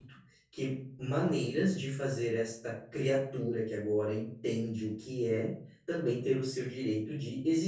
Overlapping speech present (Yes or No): No